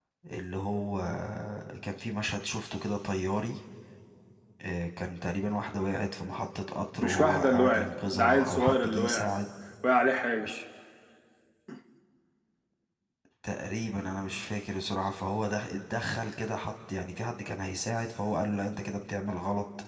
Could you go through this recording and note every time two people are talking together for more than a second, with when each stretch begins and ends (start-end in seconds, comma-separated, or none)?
7.0-9.3